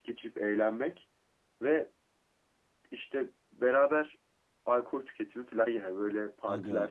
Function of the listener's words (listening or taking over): taking over